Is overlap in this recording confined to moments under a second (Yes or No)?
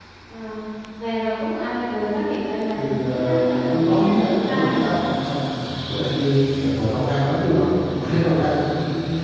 No